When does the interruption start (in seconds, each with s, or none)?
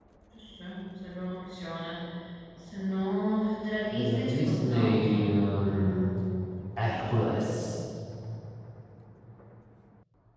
3.9 s